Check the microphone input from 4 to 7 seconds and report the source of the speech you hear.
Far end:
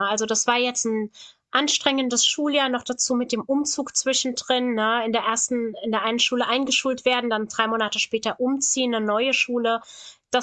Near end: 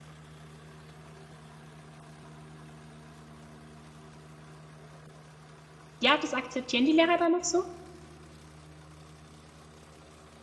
user only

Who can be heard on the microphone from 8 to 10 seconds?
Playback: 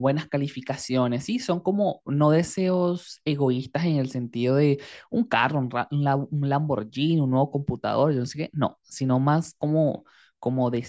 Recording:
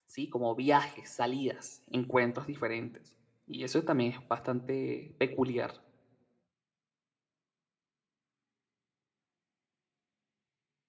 neither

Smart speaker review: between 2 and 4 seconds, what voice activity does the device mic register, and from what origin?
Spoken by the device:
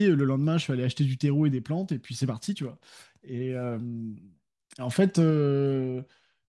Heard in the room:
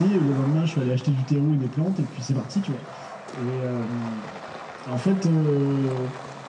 echo only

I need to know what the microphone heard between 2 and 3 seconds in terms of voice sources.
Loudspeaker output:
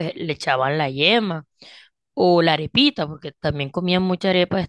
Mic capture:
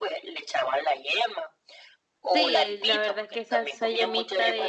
both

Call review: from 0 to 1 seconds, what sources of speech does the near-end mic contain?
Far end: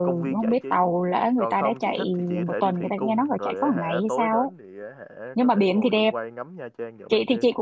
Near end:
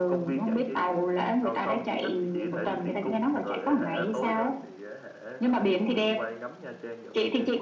echo only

